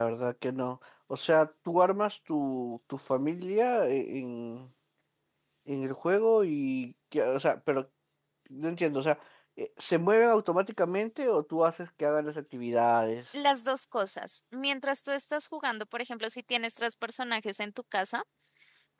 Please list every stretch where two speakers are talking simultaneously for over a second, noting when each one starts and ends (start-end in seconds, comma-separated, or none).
none